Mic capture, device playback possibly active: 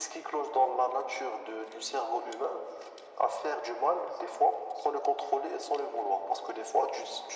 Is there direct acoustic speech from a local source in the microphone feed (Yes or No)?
No